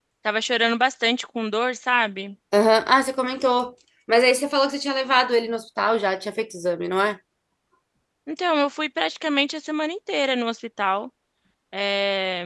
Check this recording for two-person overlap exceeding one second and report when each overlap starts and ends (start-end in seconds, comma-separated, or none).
none